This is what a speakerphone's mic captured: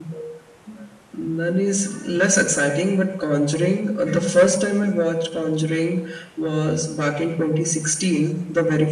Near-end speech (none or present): none